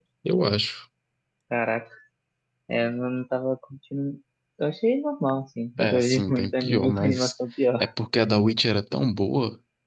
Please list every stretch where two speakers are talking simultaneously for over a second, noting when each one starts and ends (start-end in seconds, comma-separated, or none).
5.8-7.3